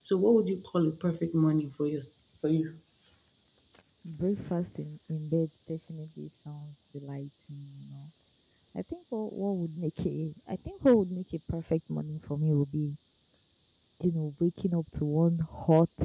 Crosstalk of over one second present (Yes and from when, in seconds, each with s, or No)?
No